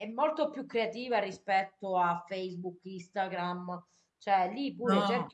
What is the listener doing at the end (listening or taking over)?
listening